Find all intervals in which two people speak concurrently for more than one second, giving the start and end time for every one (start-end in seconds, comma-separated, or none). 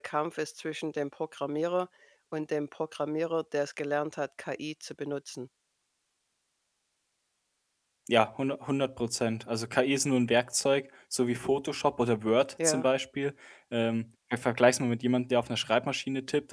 none